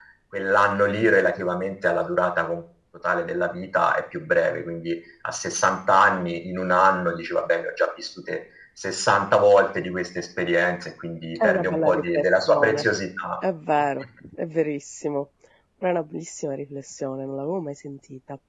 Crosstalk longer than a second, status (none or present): present